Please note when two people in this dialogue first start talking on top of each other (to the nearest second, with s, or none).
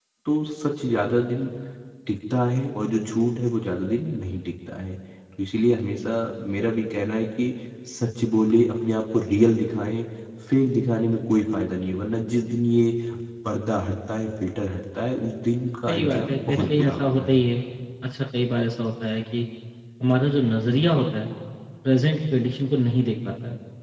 16 s